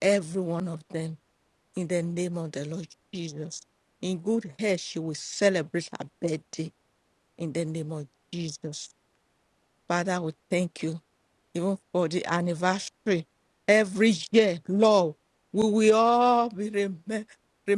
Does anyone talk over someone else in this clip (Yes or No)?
No